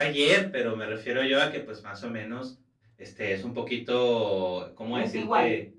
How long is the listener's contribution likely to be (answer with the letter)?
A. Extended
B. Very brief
B